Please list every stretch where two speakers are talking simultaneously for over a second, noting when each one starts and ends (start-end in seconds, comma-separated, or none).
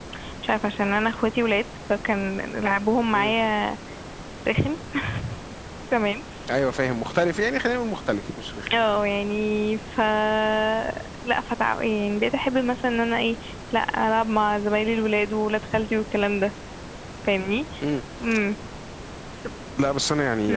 none